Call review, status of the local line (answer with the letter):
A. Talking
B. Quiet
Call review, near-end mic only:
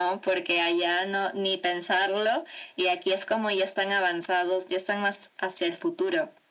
B